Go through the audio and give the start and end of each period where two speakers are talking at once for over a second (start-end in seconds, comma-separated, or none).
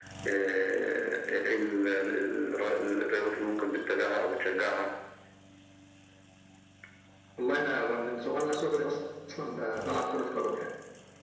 none